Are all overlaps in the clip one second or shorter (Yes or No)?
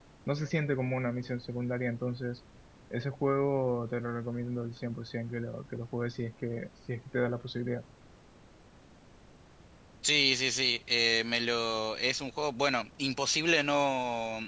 Yes